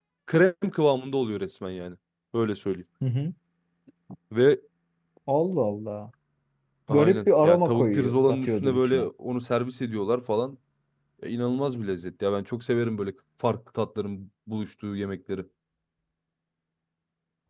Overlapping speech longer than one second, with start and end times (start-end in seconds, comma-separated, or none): 6.9-9.1